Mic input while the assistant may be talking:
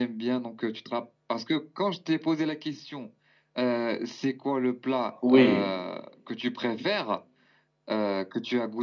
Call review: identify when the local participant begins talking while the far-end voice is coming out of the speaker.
5.2 s

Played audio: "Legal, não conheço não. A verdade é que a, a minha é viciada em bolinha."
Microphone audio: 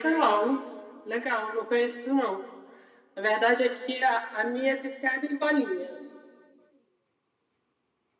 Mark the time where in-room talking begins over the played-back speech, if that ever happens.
none

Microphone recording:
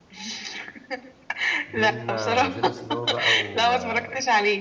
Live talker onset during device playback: 1.6 s

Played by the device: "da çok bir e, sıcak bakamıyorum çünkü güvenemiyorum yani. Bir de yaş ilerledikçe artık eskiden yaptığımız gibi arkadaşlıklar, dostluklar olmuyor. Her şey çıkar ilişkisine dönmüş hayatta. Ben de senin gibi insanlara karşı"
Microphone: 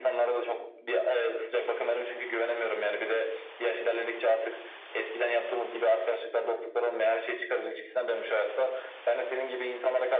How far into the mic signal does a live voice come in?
none

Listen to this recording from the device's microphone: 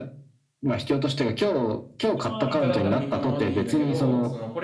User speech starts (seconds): 2.2 s

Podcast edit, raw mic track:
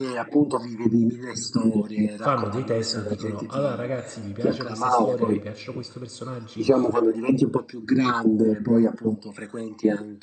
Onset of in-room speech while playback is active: 2.2 s

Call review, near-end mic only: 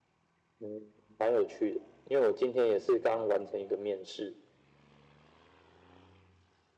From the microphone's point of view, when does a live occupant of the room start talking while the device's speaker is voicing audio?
none

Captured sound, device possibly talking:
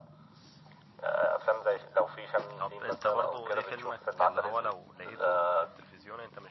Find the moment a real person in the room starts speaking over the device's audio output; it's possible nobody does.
2.5 s

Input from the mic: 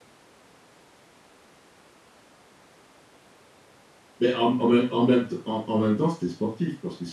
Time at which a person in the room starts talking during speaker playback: 4.2 s

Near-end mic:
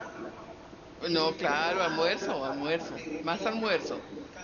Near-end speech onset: 1.1 s

